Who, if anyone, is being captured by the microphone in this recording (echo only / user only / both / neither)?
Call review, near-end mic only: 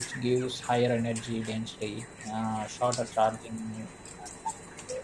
user only